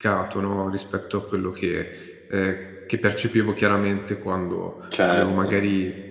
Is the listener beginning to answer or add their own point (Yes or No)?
No